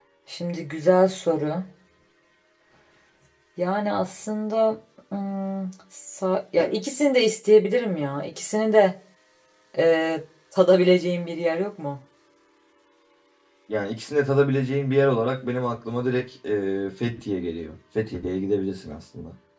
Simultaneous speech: No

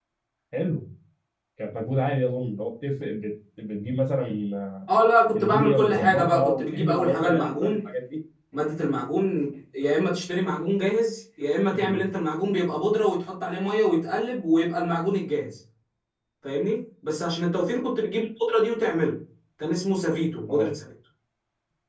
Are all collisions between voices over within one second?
No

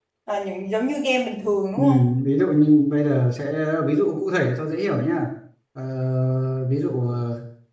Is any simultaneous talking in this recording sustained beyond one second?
No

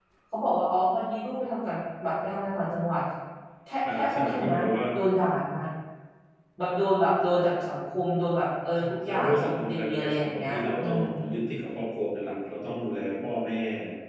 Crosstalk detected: Yes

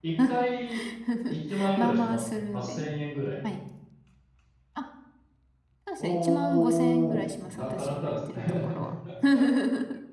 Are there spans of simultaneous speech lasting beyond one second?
Yes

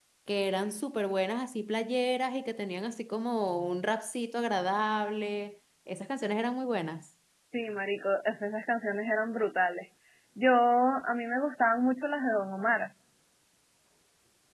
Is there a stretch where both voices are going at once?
No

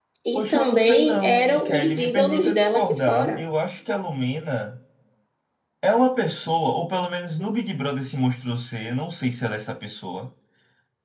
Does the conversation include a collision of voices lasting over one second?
Yes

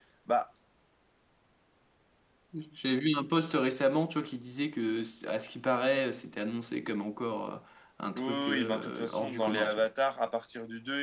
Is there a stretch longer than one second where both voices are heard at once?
Yes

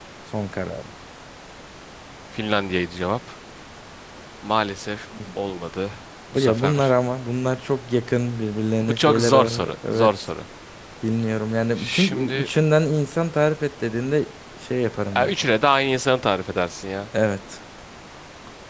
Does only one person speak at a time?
No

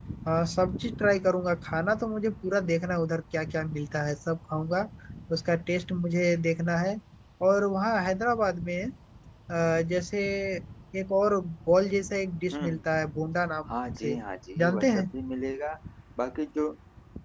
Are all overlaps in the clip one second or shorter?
Yes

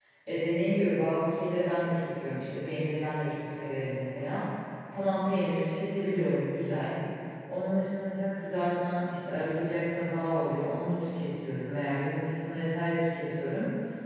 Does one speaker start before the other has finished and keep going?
No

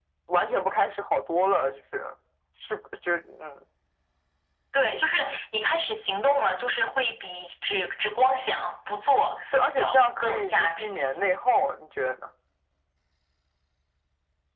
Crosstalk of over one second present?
Yes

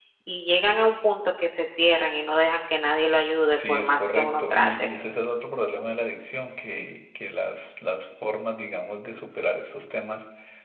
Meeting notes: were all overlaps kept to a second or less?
No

